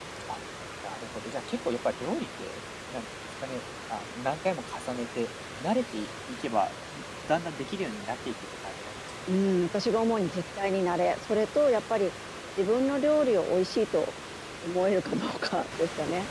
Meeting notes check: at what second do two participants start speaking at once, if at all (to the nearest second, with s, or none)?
none